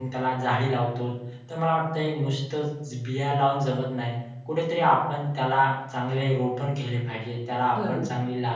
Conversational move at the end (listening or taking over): listening